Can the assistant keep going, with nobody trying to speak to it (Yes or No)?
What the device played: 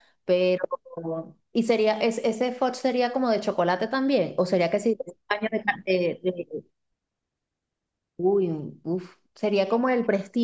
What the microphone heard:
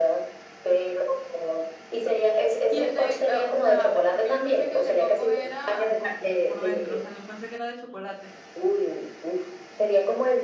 No